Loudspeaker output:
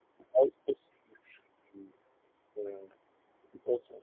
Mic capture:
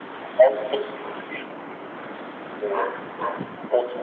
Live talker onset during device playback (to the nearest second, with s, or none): none